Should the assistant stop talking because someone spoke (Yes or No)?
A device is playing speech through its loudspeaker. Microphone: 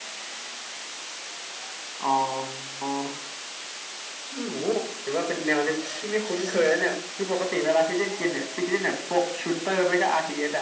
No